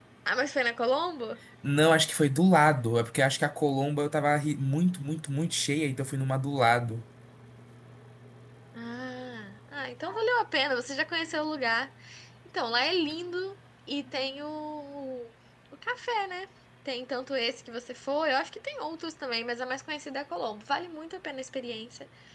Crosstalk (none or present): none